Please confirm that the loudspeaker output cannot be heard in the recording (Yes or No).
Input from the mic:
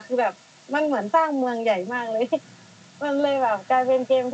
No